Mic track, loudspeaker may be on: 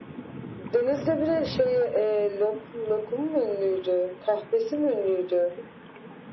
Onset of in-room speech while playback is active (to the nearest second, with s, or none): none